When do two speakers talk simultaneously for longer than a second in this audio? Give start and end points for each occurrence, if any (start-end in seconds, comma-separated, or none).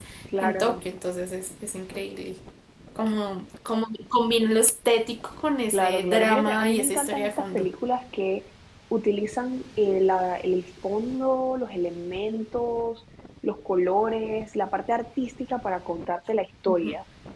5.7-7.7